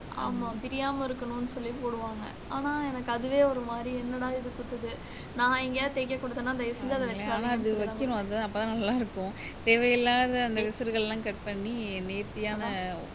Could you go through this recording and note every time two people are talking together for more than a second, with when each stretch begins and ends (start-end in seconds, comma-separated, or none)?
6.8-8.0